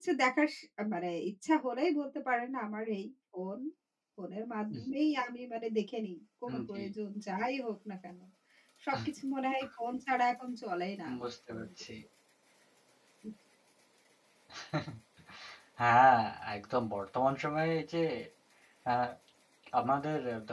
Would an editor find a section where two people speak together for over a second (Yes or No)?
No